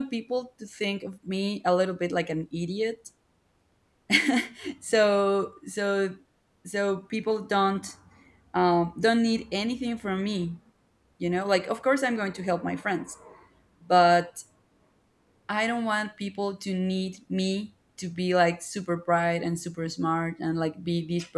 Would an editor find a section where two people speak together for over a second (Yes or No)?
No